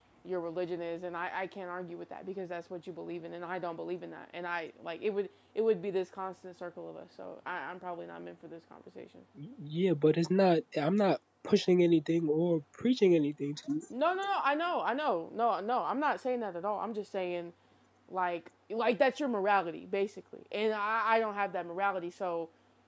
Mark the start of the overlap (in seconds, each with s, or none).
none